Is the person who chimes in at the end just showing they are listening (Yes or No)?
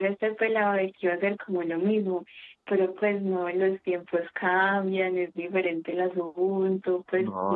No